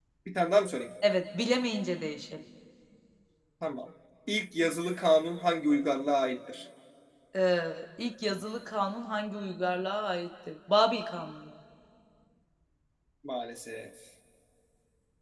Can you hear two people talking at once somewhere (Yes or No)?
No